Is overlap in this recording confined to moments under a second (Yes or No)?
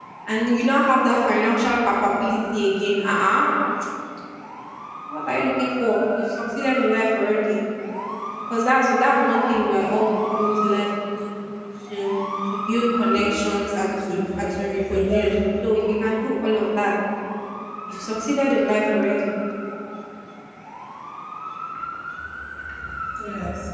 No